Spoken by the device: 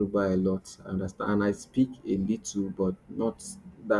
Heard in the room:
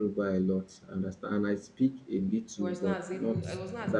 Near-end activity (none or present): present